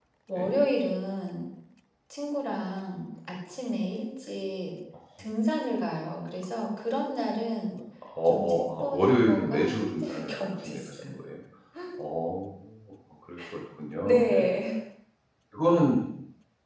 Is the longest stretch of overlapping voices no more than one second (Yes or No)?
No